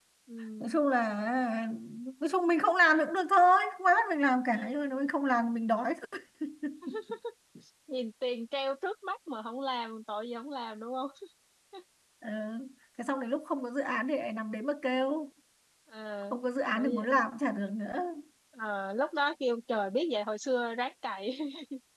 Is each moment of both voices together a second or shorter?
Yes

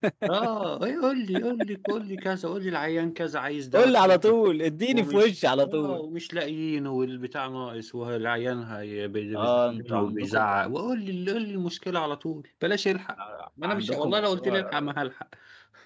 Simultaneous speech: Yes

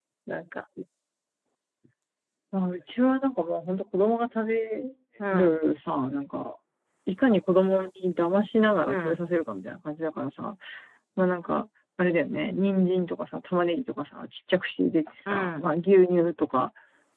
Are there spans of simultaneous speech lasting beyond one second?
No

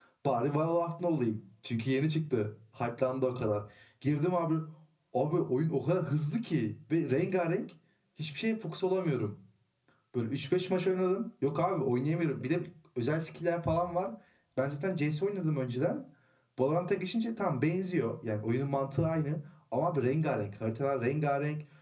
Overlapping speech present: No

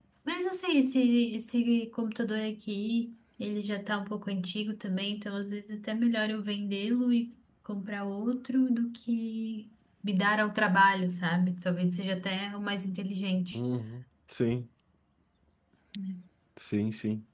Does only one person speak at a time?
Yes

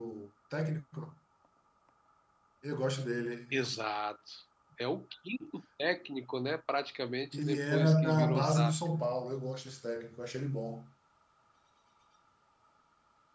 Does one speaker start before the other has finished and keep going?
Yes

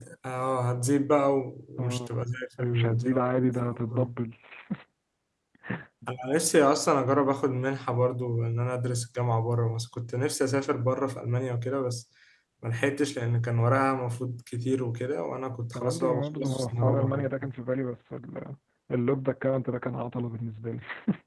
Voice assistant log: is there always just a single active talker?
No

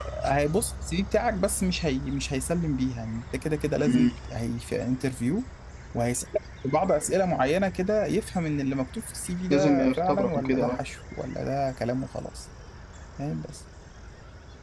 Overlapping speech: Yes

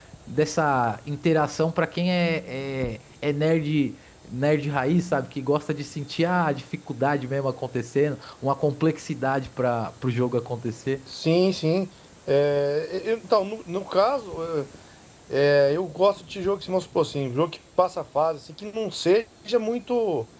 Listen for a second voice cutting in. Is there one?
No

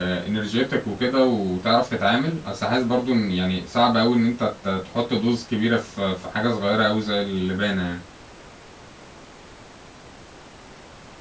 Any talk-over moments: No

